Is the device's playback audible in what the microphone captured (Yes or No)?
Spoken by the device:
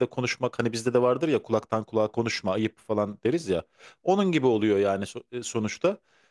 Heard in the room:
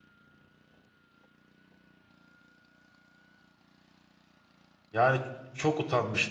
No